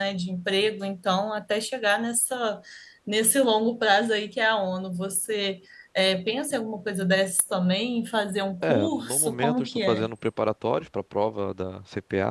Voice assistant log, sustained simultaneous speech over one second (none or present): present